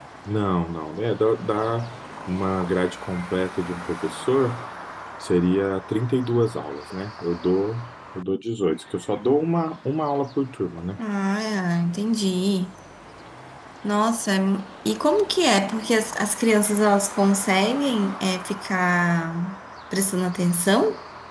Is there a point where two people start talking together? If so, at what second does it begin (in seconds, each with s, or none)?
none